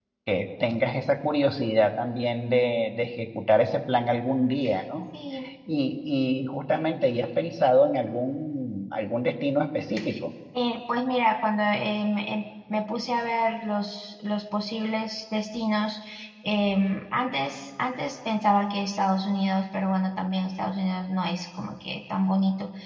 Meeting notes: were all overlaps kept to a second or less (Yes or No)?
Yes